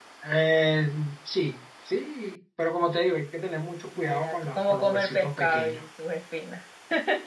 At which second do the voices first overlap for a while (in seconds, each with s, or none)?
4.0 s